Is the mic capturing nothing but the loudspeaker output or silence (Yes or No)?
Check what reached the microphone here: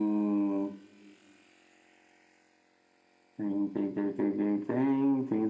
Yes